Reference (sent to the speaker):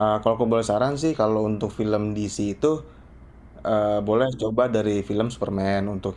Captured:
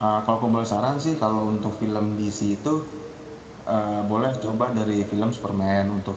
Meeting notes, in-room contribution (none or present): none